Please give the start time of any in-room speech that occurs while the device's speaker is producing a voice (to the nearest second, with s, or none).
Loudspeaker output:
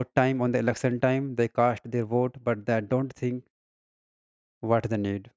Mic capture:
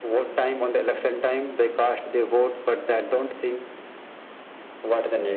none